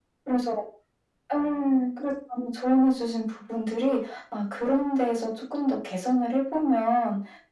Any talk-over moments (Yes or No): No